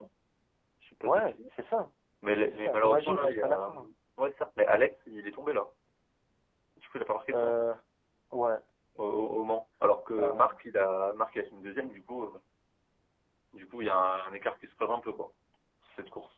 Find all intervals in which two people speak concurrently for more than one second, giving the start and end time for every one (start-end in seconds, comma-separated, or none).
2.4-3.8